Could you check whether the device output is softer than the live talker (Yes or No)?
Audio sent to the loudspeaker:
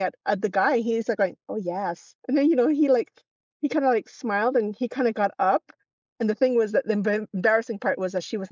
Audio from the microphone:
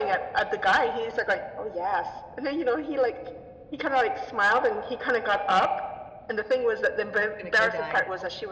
No